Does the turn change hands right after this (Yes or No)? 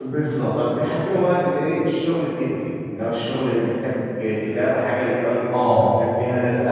Yes